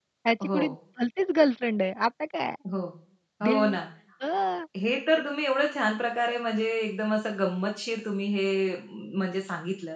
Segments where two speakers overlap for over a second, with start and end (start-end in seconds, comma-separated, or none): none